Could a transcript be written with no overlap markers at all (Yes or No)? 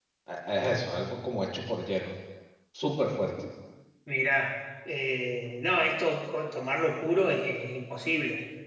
Yes